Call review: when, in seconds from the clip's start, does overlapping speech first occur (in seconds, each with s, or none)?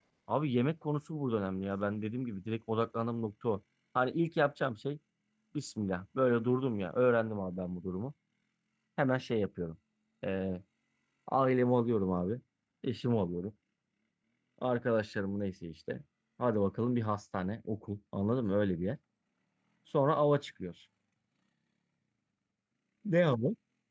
none